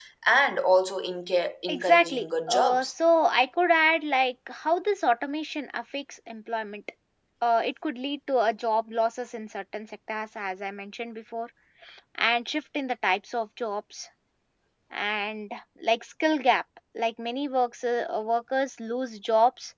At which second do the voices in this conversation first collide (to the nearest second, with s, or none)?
2 s